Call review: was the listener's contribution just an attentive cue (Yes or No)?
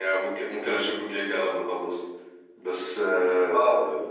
Yes